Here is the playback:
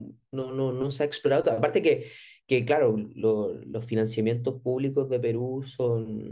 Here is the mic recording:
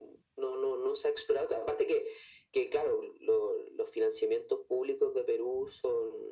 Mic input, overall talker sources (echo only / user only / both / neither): echo only